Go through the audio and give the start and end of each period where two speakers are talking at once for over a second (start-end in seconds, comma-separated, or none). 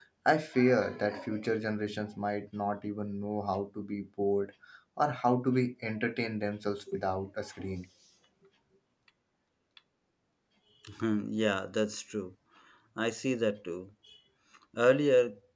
none